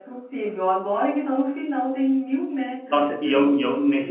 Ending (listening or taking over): taking over